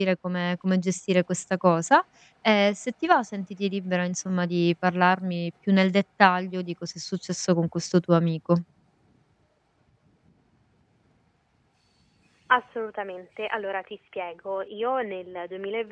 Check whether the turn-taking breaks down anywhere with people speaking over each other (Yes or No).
No